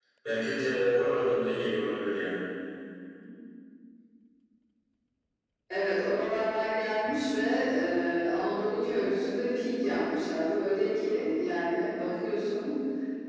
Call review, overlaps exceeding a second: none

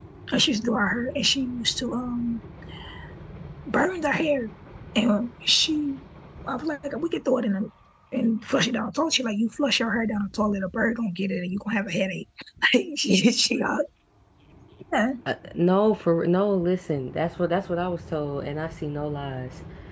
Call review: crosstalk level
none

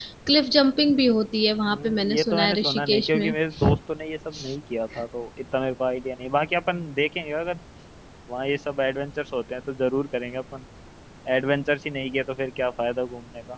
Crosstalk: present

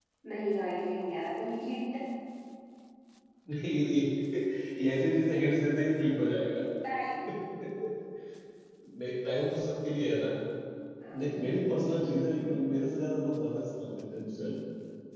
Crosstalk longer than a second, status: none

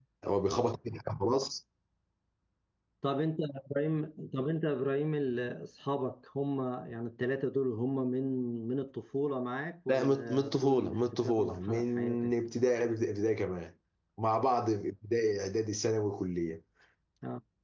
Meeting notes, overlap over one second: present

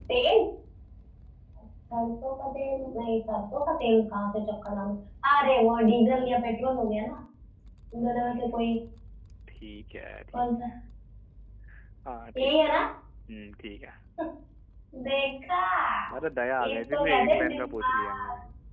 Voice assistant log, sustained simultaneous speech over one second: present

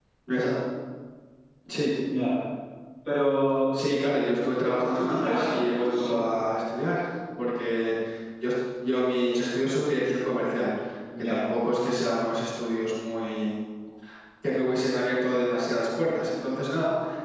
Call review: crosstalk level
present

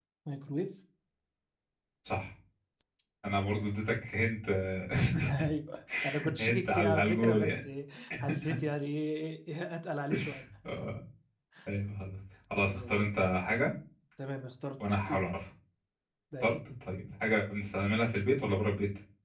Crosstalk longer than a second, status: present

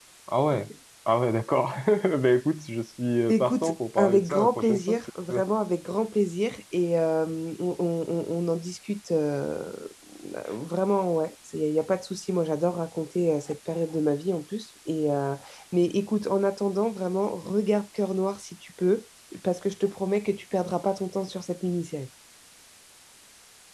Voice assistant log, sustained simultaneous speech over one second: present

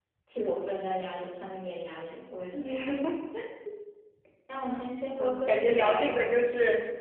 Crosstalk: present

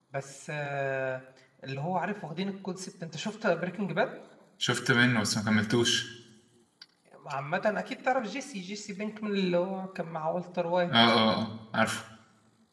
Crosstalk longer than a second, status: none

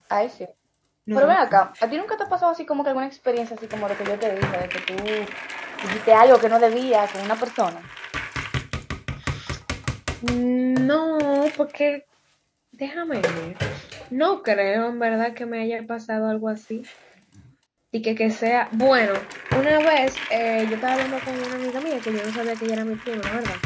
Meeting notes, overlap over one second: none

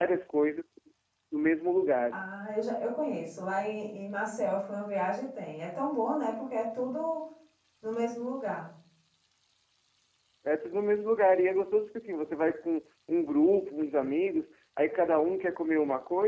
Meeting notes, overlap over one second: none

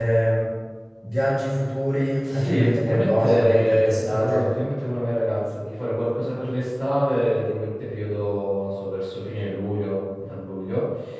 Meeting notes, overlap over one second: present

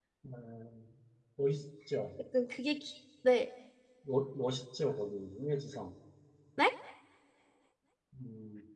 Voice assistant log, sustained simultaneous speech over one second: none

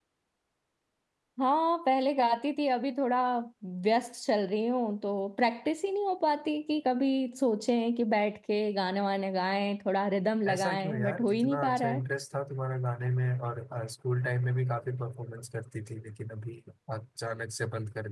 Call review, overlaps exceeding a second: present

